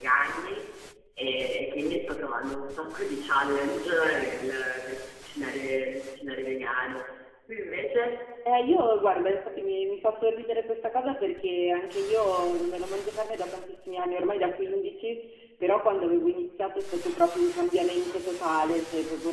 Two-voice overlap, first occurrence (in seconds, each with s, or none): none